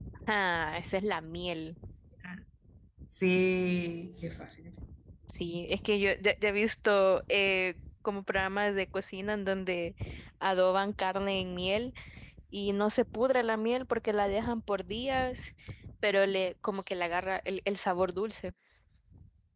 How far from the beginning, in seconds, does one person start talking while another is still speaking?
none

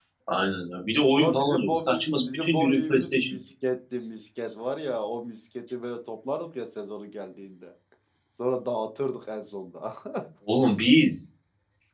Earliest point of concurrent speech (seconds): 1.1 s

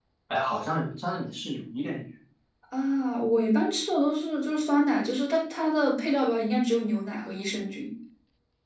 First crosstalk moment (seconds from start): none

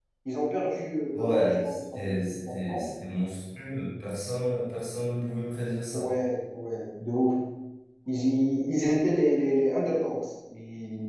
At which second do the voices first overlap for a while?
1.1 s

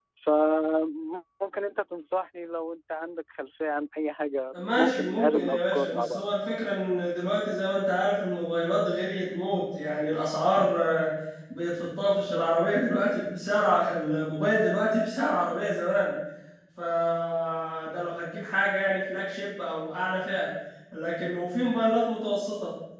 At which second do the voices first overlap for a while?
4.5 s

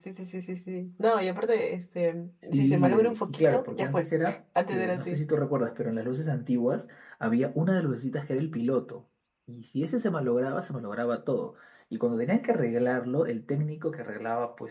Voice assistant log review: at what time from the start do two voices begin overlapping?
2.4 s

